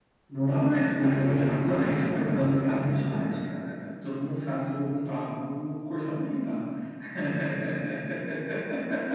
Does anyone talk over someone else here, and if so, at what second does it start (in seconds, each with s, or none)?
1.0 s